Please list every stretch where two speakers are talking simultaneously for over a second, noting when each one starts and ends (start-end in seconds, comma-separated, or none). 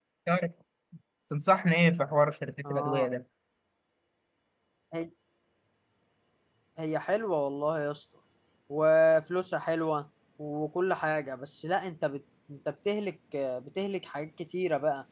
none